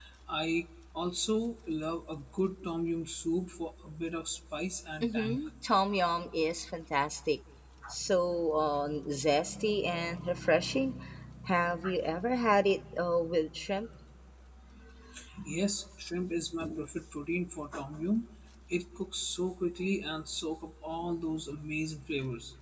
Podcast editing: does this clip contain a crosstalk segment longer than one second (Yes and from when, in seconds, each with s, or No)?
No